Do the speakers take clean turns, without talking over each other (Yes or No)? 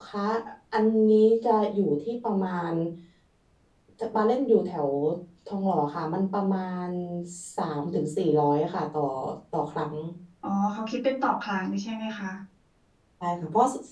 Yes